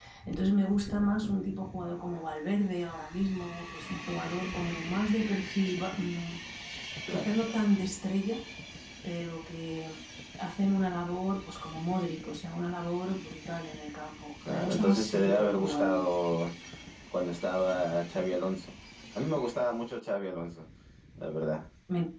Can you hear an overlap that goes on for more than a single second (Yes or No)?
Yes